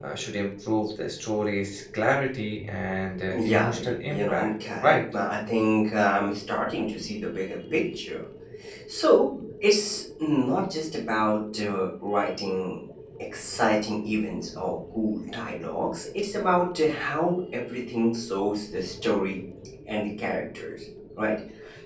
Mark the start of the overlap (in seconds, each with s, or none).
3.3 s